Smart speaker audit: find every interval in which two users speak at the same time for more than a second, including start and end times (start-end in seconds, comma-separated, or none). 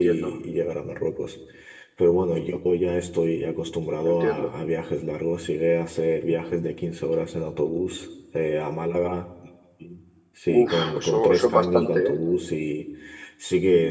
10.5-12.1